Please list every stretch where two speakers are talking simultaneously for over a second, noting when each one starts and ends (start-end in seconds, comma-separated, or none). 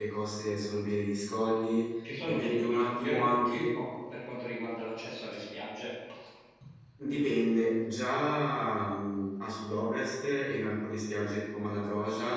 2.0-3.7